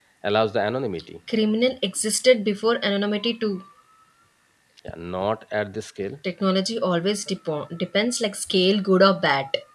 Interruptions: none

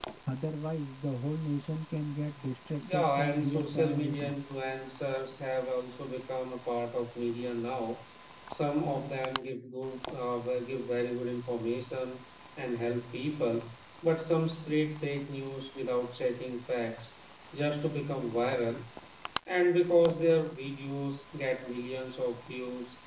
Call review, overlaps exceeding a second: present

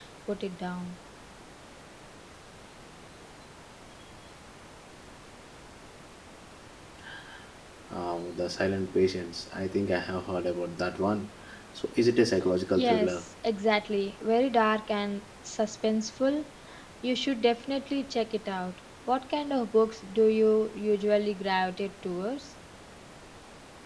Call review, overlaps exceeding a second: none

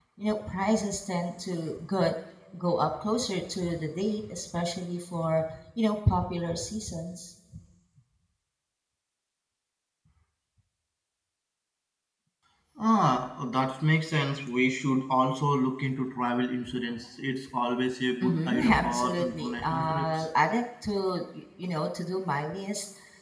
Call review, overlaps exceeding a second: present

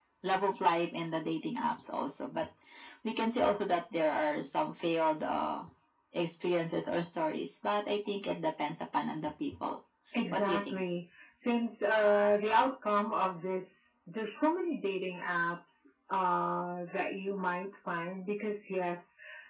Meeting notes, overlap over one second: none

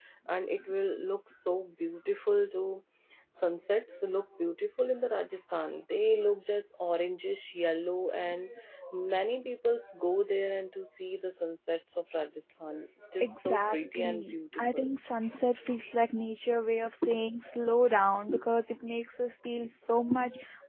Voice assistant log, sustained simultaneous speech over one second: present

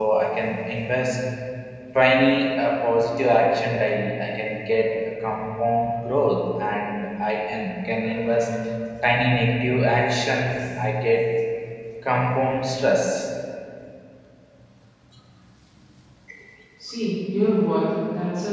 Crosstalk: none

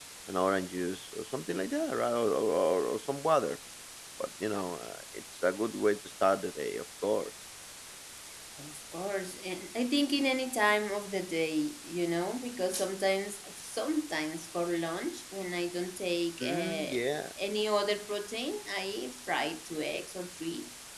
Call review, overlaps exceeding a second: none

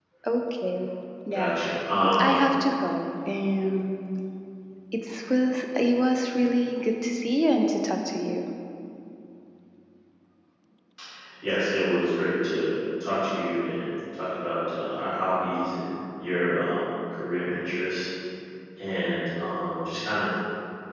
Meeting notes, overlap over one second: none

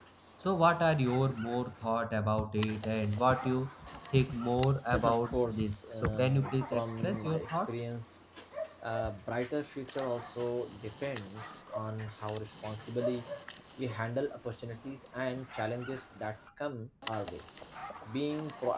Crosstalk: present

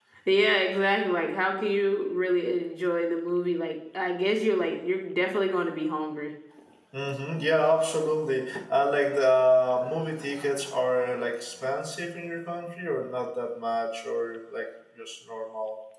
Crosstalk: none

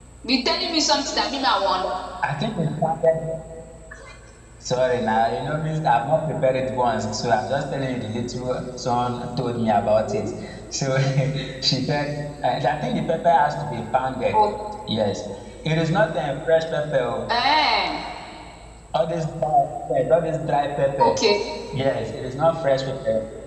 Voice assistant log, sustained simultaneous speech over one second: none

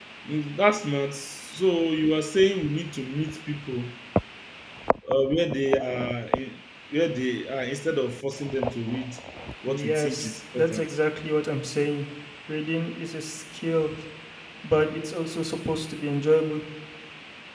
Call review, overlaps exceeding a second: present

